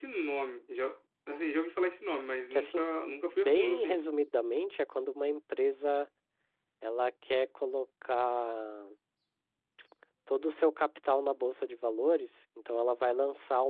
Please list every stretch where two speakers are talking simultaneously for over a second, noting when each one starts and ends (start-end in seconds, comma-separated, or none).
2.5-4.1